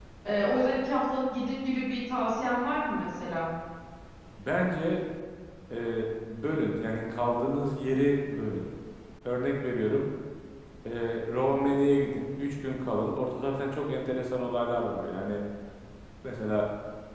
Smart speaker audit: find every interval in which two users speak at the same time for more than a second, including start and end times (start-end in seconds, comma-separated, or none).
none